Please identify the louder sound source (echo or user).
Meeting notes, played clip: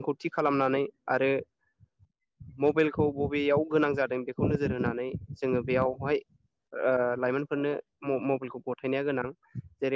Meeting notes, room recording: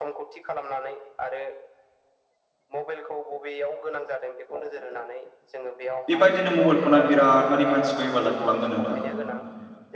user